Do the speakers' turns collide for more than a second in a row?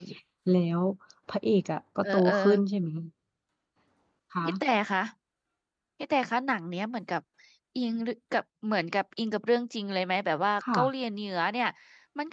No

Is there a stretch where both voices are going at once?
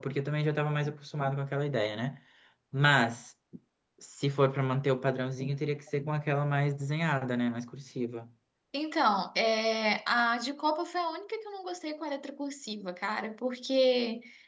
No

